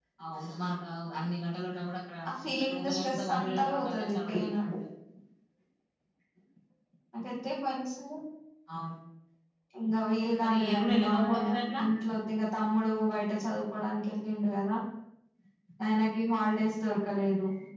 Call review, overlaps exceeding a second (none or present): present